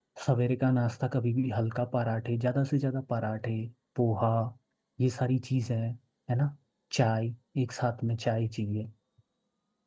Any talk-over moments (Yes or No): No